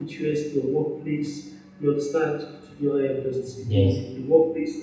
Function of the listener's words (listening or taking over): listening